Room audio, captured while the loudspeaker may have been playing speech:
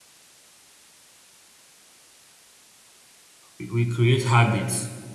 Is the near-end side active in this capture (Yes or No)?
Yes